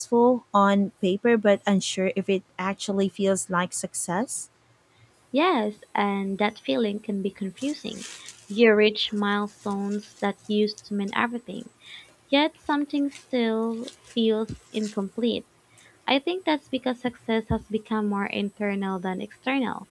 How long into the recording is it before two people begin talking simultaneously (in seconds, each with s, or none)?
none